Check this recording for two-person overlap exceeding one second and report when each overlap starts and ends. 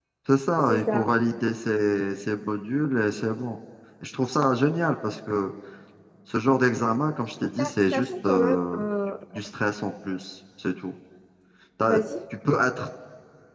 7.6-8.8

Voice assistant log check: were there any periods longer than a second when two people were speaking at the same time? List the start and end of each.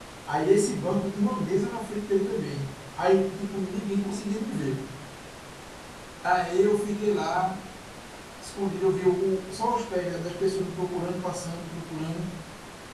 none

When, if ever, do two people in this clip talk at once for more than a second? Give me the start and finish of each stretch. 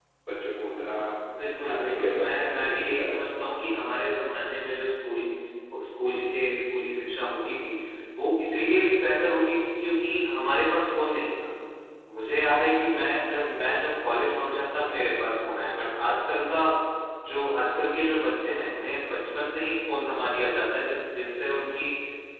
1.6-3.2

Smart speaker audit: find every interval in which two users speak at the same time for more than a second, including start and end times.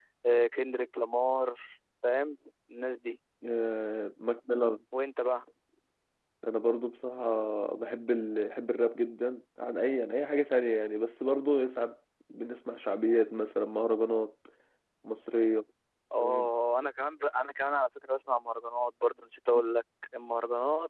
none

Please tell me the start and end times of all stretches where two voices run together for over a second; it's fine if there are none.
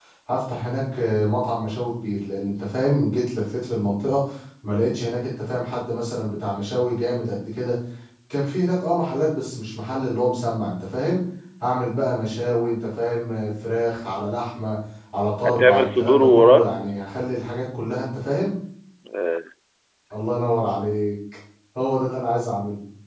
15.4-16.7

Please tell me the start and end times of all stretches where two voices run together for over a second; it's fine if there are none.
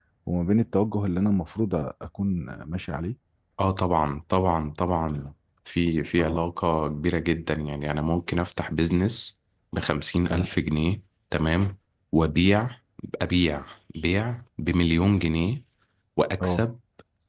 none

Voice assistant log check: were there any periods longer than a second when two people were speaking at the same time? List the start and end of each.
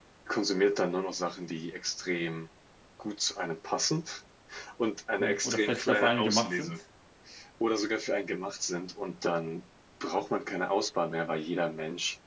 5.2-6.8

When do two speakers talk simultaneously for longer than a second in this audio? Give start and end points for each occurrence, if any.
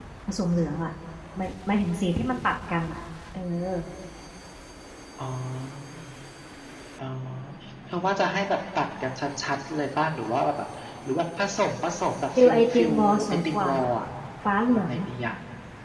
12.4-13.7

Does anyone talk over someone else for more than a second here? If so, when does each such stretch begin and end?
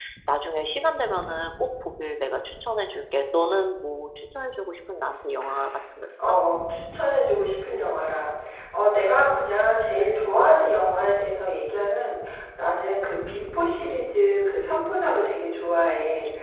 none

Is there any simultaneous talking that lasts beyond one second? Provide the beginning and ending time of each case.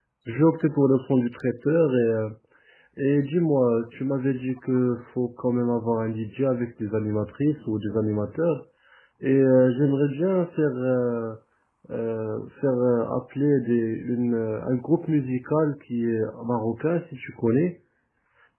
none

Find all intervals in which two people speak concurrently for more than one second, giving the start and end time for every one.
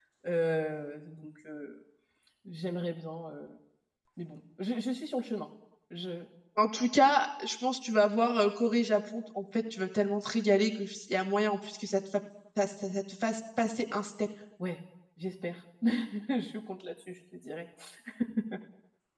none

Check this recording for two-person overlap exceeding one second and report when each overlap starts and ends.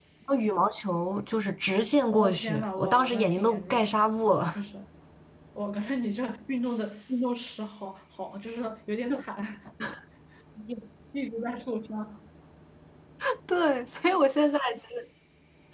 2.1-4.6

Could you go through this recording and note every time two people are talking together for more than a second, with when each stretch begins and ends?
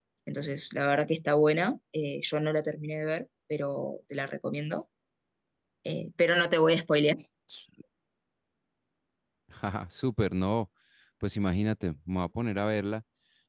none

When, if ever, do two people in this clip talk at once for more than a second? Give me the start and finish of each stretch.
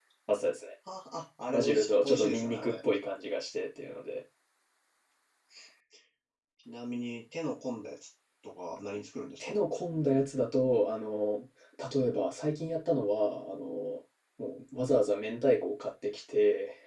1.5-2.7

